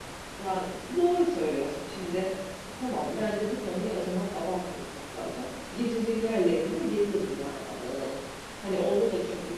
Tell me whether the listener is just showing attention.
Yes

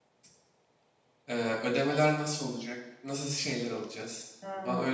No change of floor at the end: No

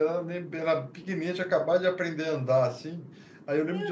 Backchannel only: Yes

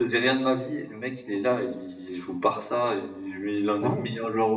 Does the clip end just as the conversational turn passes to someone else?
No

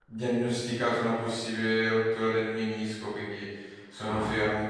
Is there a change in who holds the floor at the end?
No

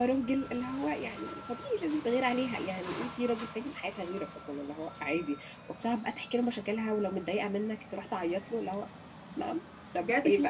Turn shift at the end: Yes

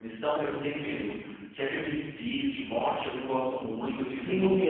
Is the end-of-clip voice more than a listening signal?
Yes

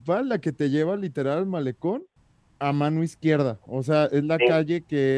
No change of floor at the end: Yes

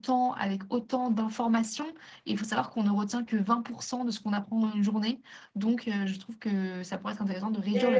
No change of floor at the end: No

